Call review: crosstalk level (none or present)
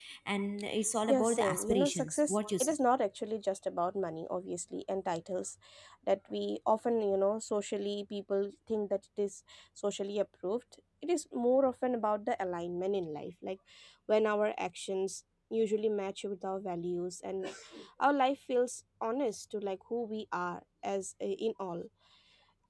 present